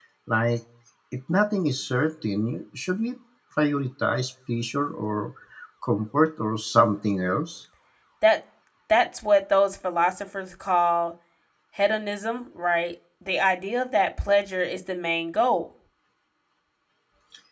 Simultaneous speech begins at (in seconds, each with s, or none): none